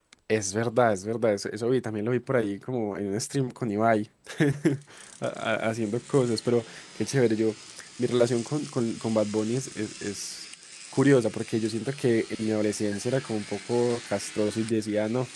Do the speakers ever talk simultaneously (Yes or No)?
No